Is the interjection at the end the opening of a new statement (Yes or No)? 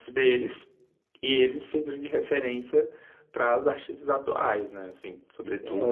Yes